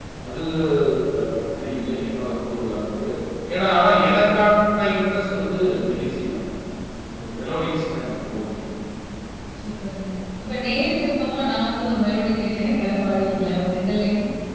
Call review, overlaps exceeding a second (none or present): none